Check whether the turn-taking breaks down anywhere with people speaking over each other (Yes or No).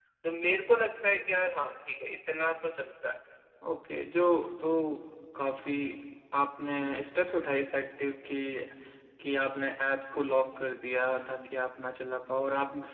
No